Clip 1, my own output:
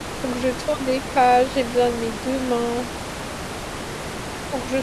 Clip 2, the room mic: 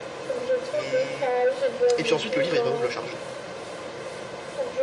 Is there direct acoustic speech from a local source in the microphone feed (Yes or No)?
Yes